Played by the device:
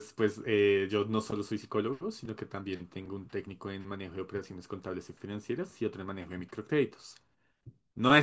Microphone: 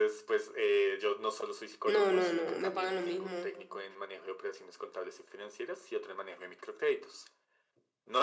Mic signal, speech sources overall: both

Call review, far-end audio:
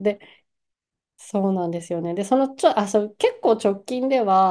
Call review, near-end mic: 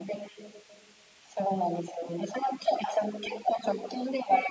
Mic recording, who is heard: echo only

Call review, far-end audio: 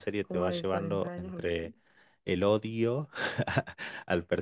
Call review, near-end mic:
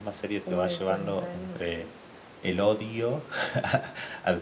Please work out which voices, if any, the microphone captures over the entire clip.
echo only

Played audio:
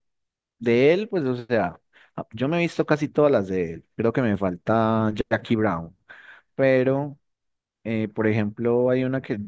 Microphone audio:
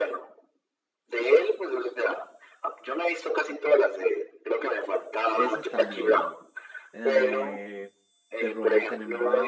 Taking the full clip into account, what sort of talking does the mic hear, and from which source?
both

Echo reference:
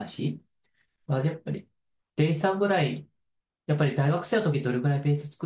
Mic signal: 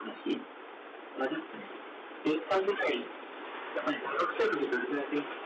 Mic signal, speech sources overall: echo only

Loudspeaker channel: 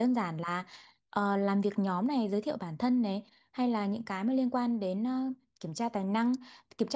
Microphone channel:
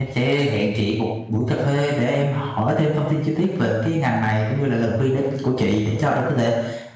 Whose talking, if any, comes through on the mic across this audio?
user only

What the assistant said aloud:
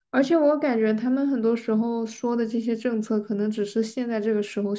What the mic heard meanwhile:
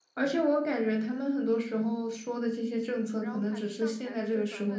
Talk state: both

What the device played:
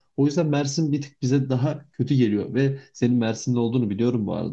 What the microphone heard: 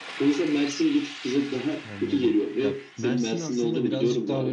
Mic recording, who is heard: both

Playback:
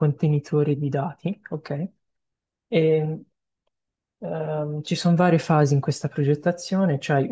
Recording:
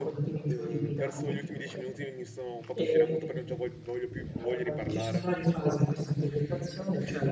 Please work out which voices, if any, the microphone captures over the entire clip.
both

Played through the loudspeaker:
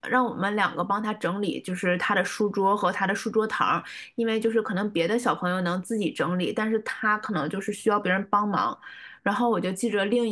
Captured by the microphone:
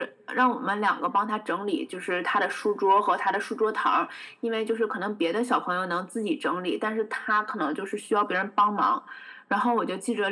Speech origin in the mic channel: echo only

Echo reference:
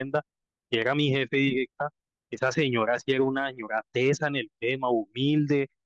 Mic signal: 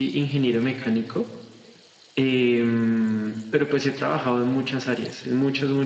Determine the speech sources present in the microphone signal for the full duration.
user only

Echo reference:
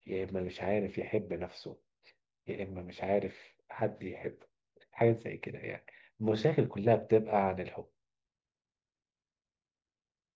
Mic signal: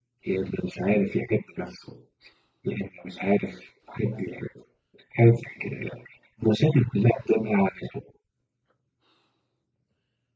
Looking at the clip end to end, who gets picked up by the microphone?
echo only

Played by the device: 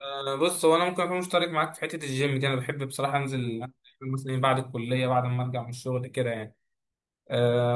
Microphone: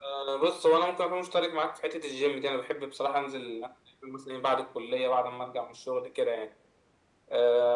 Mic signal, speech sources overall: echo only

